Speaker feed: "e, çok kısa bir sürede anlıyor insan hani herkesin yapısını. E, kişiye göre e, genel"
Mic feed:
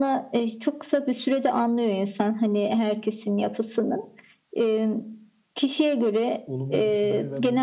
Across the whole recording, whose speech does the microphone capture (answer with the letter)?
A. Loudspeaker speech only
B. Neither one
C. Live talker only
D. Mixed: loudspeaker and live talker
D